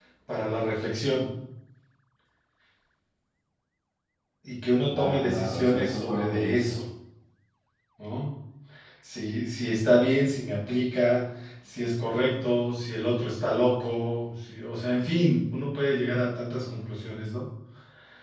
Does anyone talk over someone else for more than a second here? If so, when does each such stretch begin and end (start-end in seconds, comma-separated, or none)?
4.9-6.8